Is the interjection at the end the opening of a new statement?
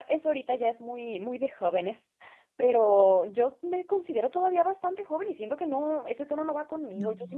No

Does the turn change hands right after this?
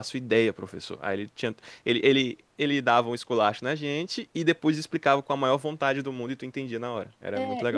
Yes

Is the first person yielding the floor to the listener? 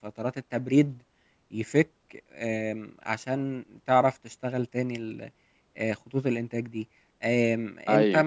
No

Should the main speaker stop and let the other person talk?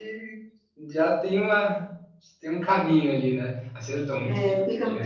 Yes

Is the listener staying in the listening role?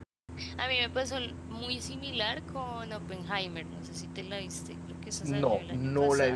No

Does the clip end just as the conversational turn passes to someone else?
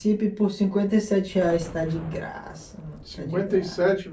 Yes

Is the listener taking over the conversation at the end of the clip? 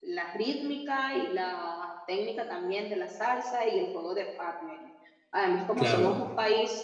No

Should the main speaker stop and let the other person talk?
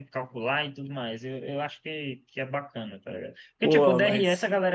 No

